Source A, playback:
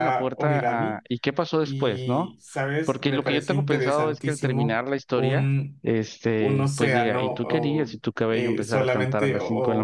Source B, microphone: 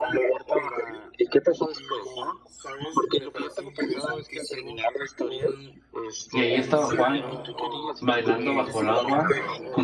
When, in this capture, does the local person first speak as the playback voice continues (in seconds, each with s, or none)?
6.3 s